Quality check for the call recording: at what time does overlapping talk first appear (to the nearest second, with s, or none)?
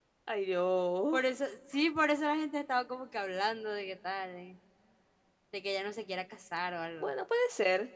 none